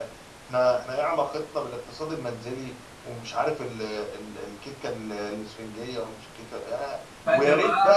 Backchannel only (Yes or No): Yes